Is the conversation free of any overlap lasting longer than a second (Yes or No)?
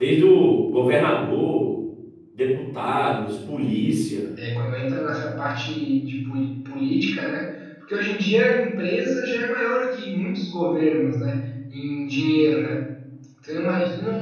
Yes